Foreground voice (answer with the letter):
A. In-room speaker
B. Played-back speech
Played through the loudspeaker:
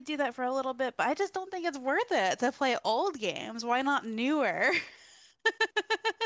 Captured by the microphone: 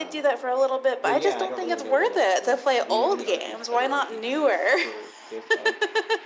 B